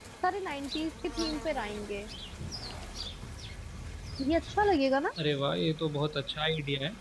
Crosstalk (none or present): none